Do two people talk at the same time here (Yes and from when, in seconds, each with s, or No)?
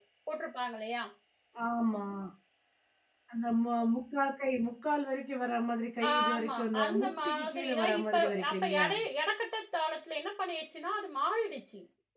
Yes, from 6.0 s